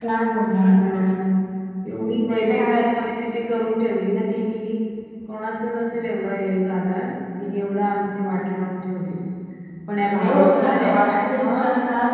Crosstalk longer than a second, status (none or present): present